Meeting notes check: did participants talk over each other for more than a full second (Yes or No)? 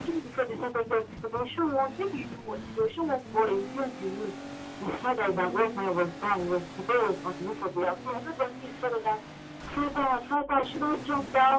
No